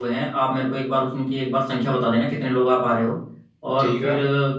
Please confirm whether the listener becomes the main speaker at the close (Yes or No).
No